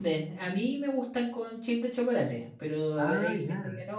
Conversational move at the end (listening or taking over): listening